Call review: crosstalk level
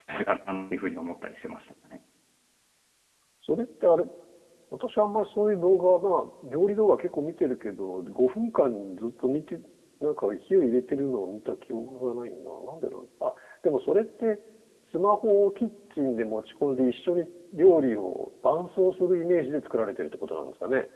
none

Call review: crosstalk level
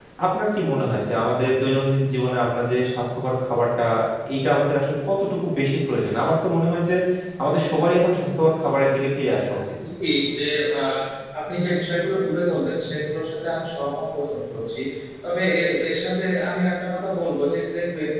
none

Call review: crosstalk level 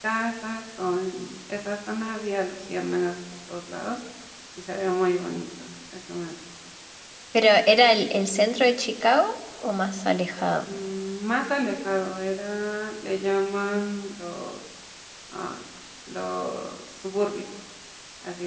none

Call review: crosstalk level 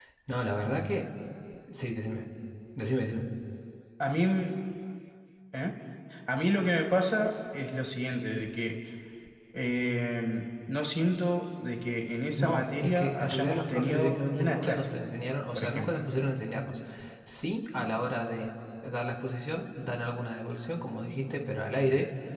present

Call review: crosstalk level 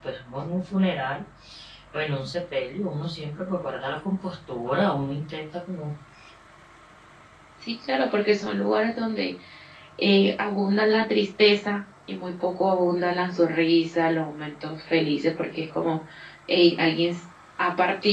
none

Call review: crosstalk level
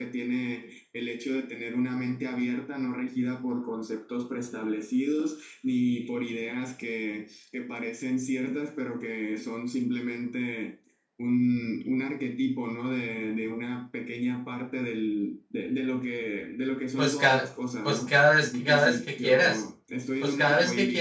present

